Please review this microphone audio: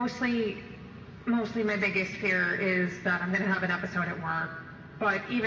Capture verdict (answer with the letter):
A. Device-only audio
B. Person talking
A